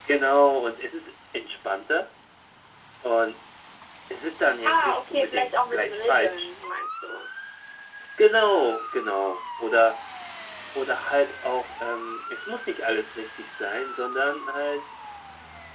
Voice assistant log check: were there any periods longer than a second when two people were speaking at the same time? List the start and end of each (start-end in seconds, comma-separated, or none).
4.6-6.5